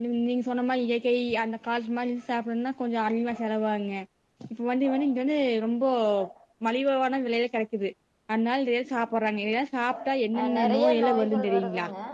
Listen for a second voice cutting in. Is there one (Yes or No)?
Yes